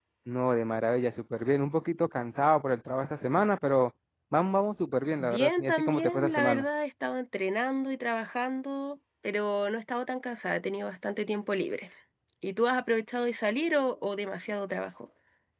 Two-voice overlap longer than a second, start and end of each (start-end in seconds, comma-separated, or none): 5.2-6.6